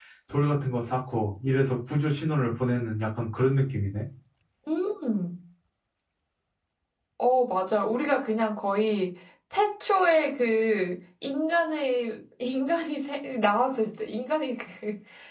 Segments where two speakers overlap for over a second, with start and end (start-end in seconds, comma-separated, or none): none